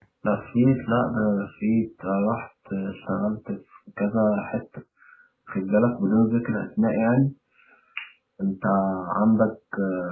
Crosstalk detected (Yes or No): No